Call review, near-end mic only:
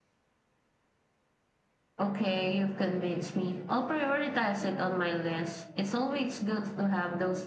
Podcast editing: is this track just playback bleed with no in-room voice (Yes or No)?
No